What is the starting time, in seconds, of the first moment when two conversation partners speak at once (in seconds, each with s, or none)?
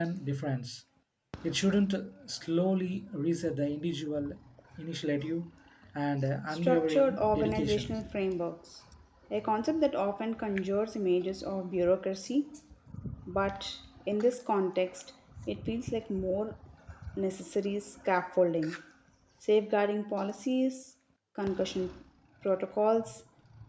6.5 s